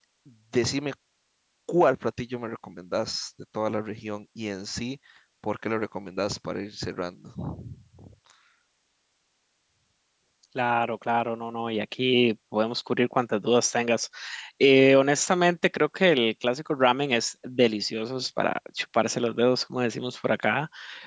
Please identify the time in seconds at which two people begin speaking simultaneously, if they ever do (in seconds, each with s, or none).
none